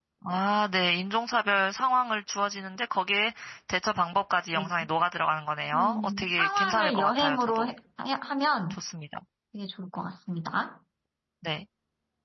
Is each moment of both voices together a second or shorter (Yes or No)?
No